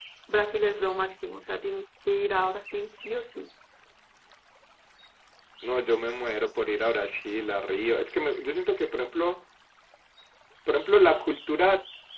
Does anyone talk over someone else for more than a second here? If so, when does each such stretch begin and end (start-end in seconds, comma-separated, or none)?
none